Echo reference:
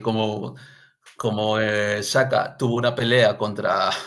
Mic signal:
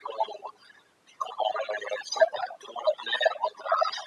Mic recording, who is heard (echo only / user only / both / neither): echo only